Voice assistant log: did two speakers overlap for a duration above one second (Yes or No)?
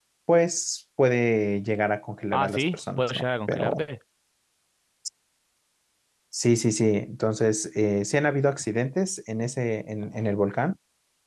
Yes